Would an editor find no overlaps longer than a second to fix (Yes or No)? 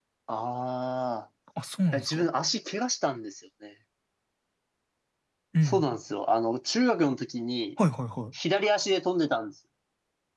Yes